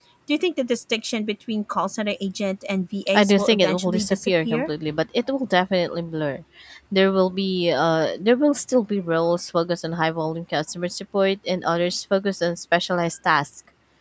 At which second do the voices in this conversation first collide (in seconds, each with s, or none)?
3.1 s